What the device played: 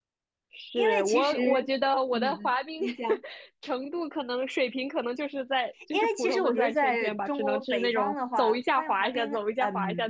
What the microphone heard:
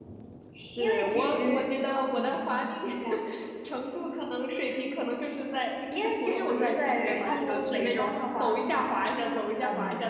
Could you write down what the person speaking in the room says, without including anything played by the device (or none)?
感觉它更街头一点。